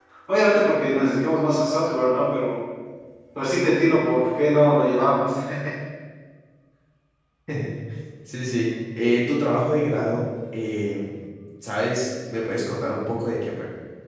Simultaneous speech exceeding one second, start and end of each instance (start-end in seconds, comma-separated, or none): none